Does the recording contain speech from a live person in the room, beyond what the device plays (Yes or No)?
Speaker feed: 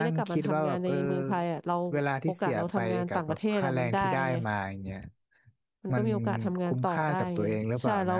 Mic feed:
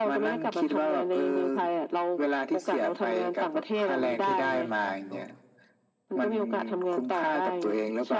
Yes